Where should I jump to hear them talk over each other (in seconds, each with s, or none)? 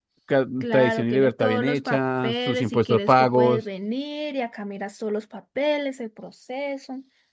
0.6 s